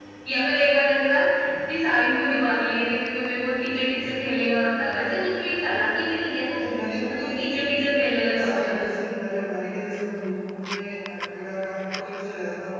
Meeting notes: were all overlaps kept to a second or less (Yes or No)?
Yes